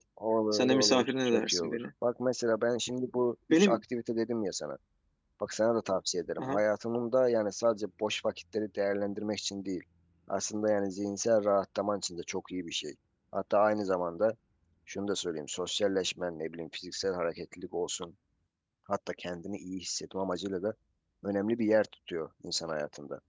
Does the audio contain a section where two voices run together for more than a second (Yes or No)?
Yes